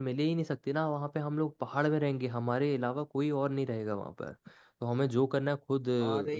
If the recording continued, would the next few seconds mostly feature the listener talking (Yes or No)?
No